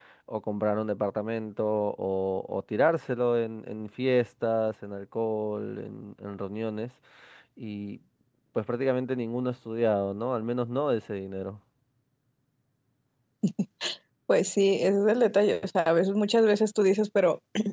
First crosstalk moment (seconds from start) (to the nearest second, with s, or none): none